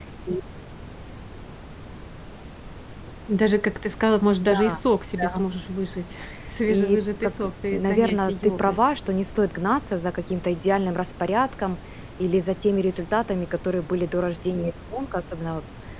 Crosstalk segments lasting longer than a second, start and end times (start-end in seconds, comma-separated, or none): 6.7-8.8